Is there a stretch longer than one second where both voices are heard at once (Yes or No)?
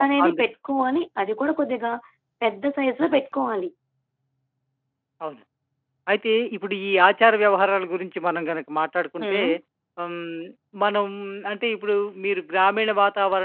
No